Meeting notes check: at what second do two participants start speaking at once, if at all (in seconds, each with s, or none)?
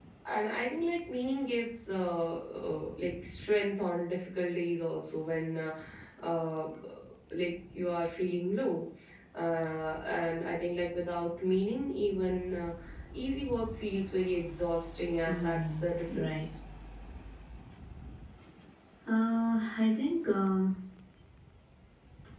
15.2 s